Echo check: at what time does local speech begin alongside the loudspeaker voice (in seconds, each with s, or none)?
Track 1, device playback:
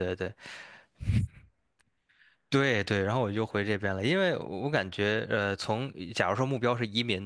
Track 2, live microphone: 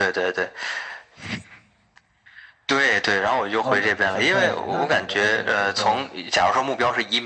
3.6 s